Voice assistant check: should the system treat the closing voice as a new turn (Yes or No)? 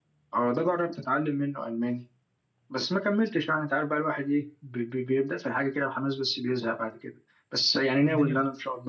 No